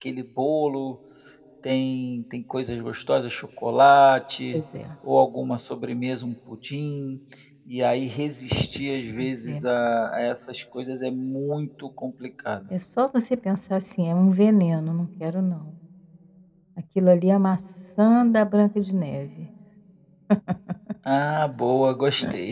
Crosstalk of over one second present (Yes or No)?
No